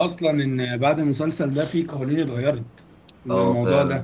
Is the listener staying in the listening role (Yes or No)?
No